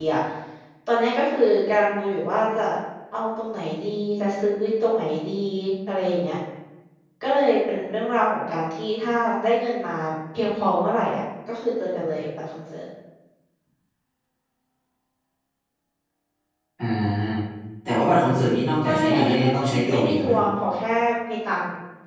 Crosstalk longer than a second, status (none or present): present